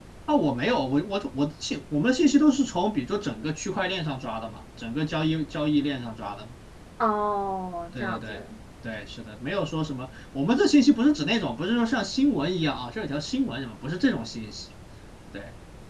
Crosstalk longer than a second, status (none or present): none